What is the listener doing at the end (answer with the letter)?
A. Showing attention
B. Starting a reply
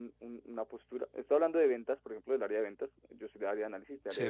A